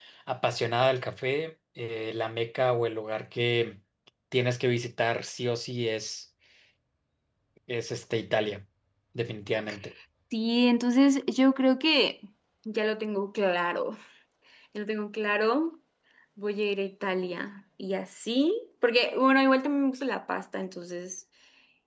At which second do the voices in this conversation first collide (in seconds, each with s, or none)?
none